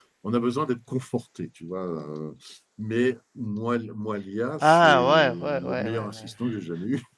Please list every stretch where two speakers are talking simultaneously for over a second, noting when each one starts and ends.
4.6-6.3

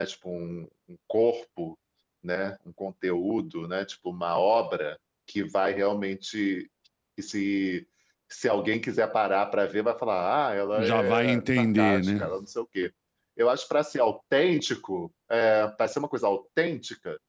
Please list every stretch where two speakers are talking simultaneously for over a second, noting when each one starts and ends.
10.8-12.3

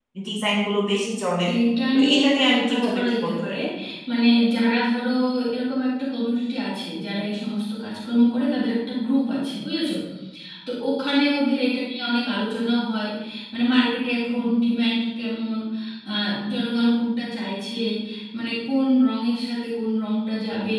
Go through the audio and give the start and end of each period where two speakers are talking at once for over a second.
1.9-3.6

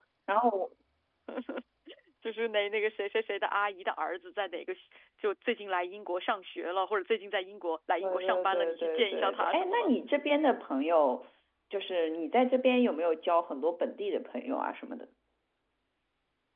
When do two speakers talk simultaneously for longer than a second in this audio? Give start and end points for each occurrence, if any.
8.0-9.9

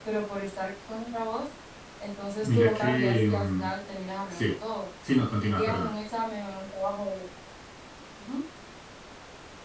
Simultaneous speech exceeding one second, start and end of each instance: 2.4-3.7

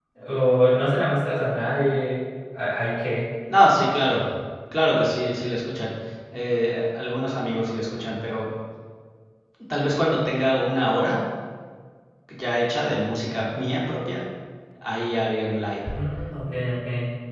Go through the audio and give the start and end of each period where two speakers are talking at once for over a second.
none

